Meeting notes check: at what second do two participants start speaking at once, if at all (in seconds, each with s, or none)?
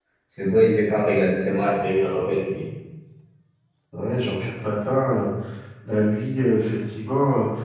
none